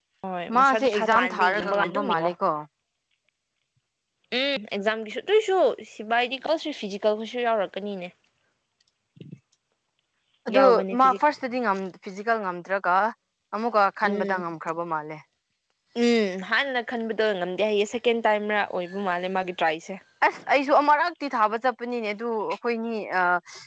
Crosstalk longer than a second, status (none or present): present